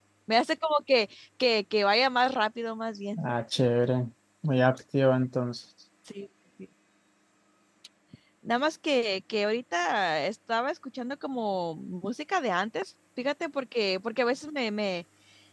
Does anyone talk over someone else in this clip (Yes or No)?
No